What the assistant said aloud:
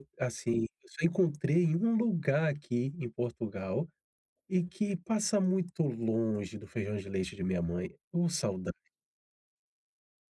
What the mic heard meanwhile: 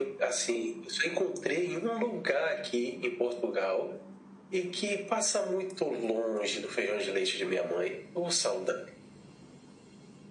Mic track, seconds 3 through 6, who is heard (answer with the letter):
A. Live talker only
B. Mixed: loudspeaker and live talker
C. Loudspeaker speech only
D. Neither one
C